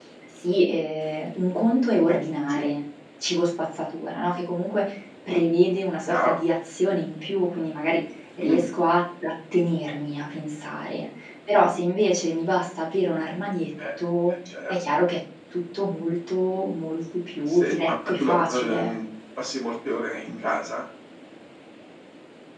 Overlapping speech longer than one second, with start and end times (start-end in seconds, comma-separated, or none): 17.5-18.9